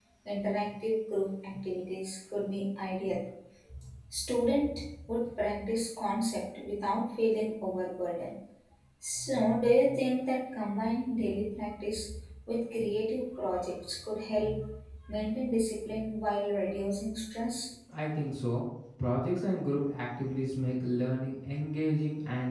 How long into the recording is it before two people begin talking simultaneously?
none

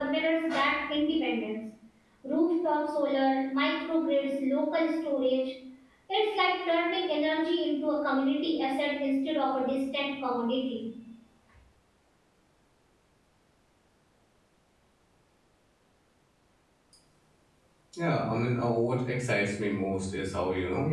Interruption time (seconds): none

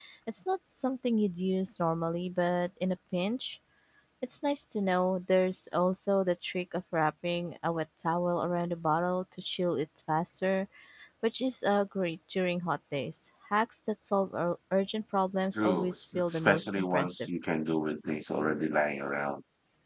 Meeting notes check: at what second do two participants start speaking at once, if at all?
15.5 s

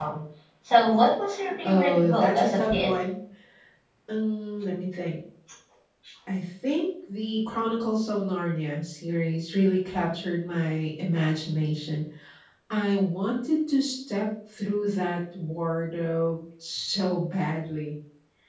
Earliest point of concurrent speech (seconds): 1.6 s

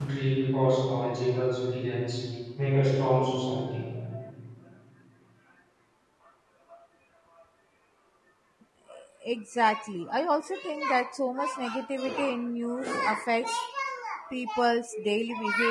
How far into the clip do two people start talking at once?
none

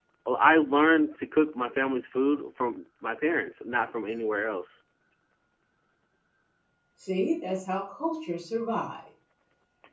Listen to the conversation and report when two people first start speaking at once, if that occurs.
none

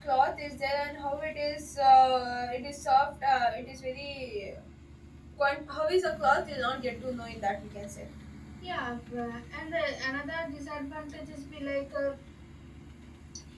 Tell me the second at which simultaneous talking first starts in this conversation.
none

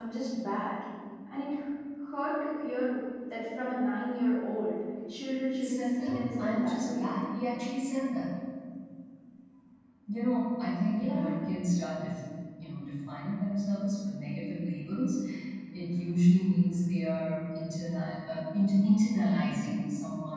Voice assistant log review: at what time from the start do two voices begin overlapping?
5.5 s

